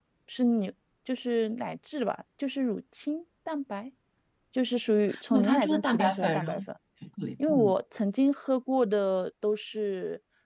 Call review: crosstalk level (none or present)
present